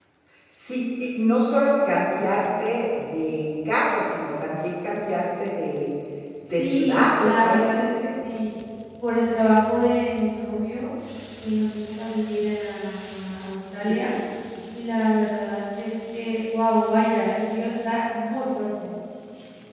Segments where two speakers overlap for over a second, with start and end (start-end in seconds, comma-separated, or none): 6.5-7.8